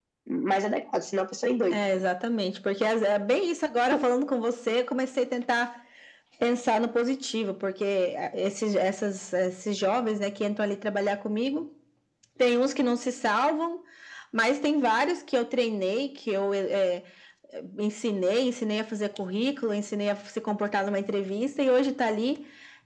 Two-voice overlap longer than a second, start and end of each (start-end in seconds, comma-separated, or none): none